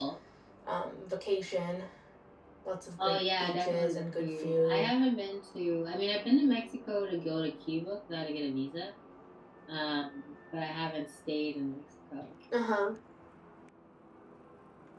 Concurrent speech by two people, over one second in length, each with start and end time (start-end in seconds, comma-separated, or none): 3.0-4.9